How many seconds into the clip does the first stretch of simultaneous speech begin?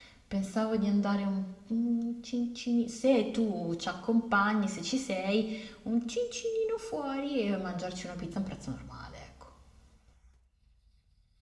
none

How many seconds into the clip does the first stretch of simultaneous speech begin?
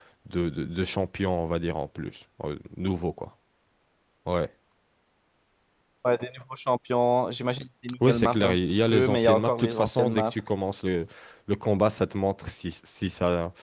8 s

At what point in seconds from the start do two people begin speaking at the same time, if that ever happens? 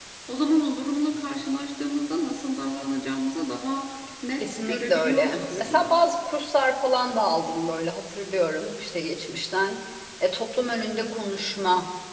4 s

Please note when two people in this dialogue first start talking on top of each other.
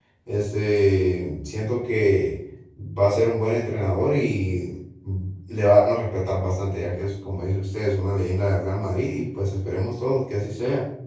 none

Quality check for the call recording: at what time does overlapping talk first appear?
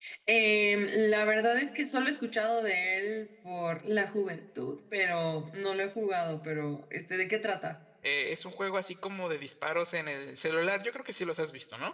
none

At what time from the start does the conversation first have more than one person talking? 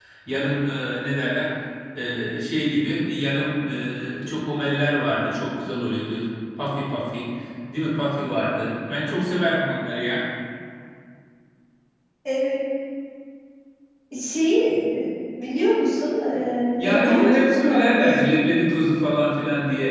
17 s

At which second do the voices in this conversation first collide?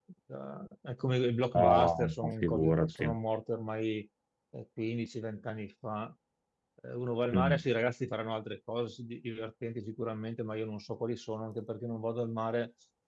2 s

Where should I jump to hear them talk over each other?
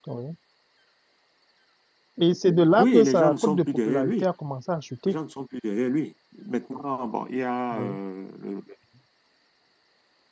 3 s

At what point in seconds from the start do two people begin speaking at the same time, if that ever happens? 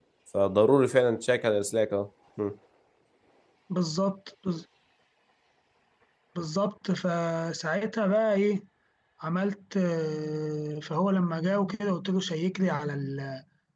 none

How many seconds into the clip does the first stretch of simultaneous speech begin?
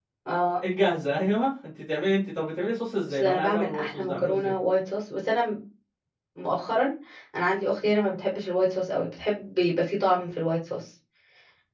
3 s

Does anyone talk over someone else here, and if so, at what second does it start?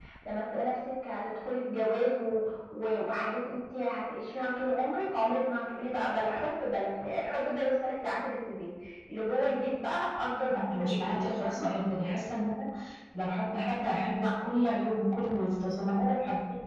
10 s

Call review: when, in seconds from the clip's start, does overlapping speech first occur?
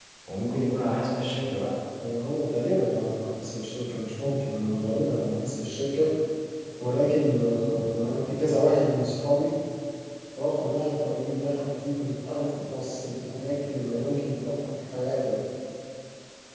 none

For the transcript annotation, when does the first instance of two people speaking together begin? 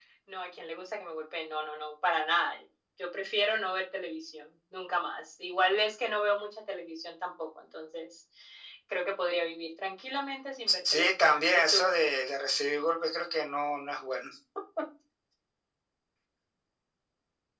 11 s

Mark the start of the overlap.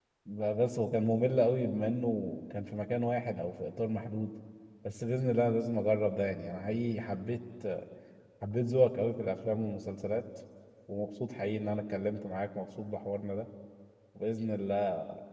none

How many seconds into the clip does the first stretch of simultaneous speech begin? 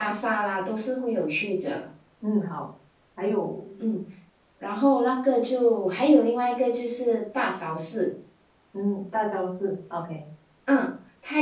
none

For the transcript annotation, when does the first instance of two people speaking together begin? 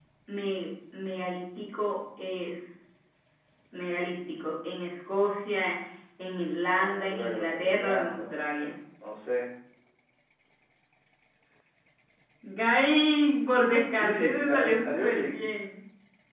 7 s

